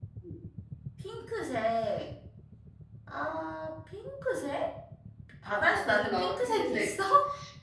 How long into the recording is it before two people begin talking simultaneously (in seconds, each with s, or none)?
5.5 s